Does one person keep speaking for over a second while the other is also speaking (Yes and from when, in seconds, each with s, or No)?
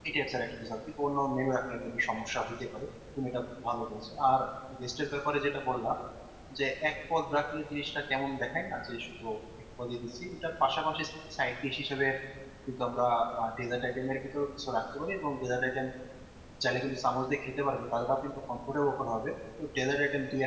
No